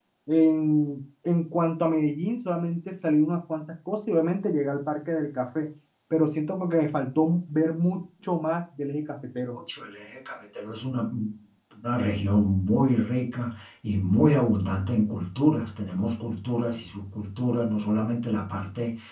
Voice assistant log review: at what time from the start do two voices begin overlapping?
none

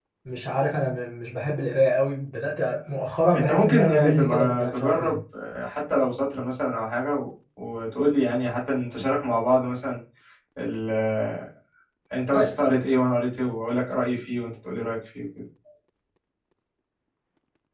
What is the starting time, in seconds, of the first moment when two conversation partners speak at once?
3.3 s

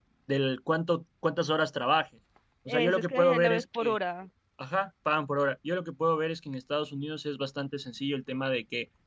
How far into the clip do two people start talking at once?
2.7 s

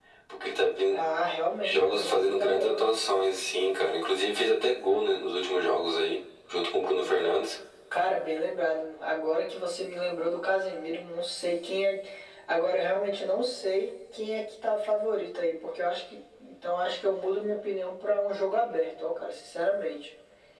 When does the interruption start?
1.6 s

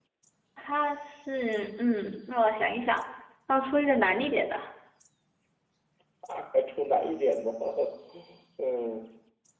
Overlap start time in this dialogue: none

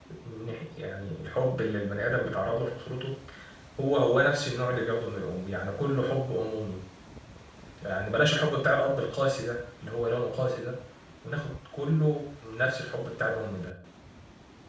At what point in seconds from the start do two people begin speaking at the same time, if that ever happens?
none

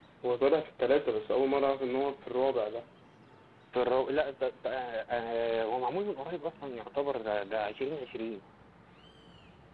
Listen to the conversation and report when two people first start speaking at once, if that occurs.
none

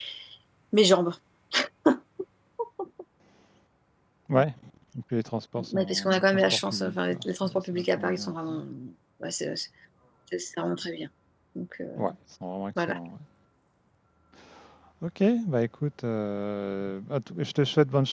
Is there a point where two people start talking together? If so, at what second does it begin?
5.7 s

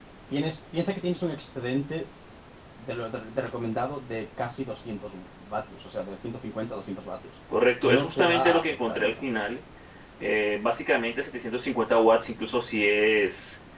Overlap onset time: 7.8 s

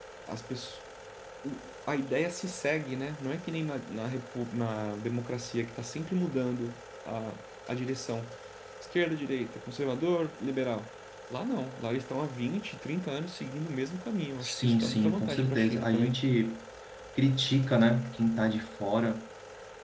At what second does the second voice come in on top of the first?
14.4 s

